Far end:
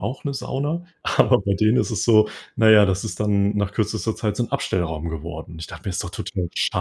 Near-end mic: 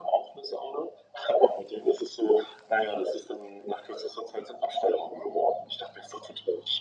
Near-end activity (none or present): none